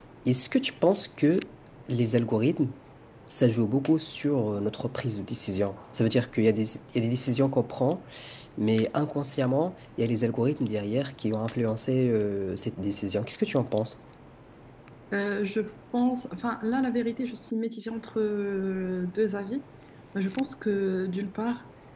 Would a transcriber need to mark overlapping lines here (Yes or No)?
No